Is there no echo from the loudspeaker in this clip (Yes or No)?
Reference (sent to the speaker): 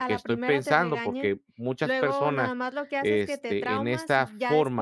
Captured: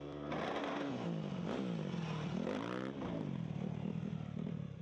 Yes